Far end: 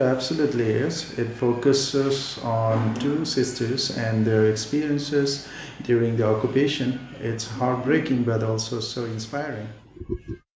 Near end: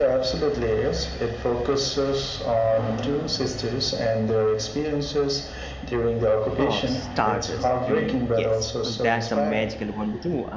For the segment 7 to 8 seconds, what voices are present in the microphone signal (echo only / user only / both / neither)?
both